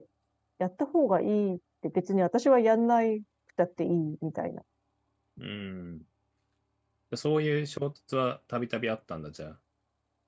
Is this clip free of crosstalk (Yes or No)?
Yes